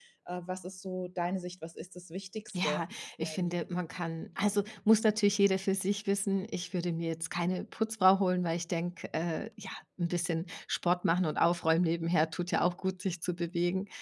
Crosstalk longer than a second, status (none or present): none